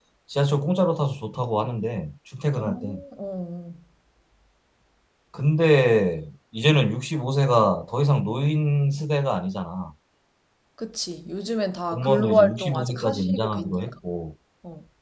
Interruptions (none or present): present